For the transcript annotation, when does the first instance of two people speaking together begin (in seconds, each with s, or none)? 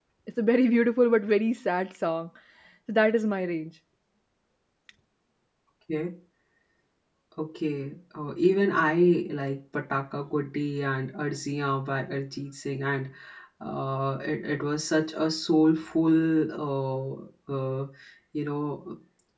none